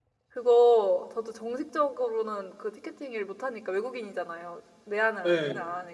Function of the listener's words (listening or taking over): listening